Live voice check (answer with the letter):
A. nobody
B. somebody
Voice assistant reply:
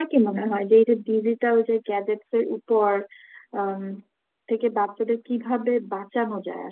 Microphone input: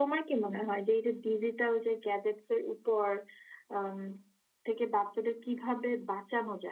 A